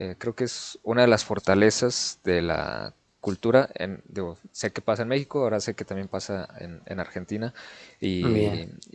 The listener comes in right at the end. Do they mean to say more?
No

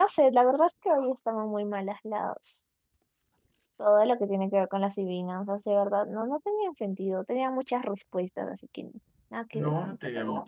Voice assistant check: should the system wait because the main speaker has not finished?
No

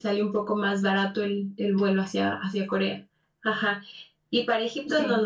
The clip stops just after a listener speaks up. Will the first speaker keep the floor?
Yes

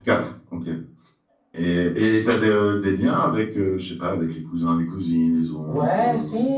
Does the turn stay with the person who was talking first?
No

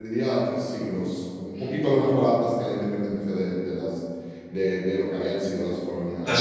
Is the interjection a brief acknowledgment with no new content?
No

